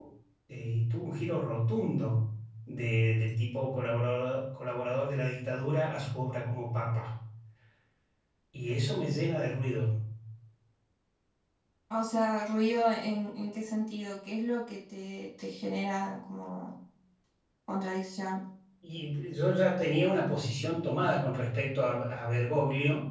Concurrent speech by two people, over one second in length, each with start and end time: none

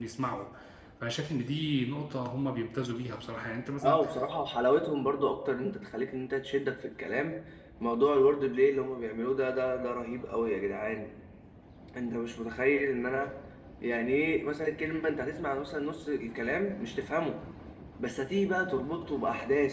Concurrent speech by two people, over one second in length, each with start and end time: none

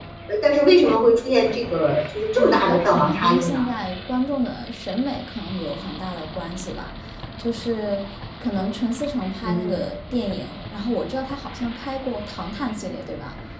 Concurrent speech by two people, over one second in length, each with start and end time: 2.4-3.6

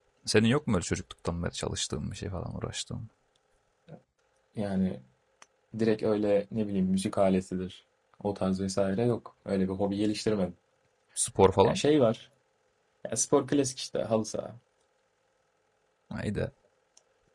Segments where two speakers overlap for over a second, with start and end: none

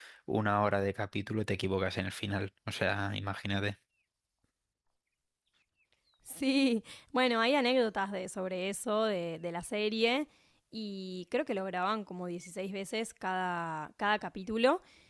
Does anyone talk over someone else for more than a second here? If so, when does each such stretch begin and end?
none

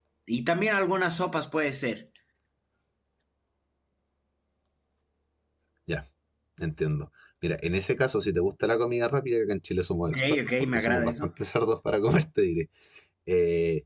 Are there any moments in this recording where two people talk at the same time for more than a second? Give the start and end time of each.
10.0-11.3

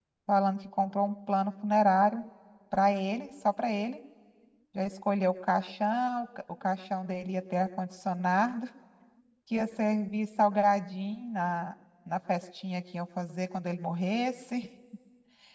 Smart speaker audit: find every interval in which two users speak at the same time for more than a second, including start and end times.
none

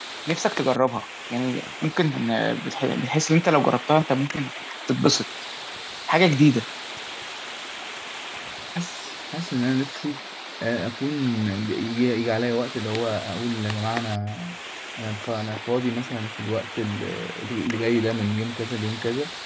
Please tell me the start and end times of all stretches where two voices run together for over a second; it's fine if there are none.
none

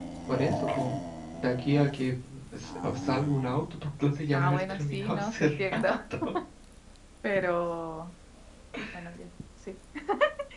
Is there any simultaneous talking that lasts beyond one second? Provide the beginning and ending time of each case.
4.3-5.9

